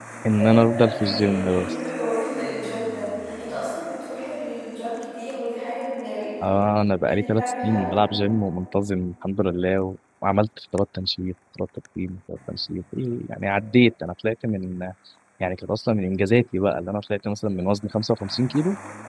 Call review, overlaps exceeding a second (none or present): present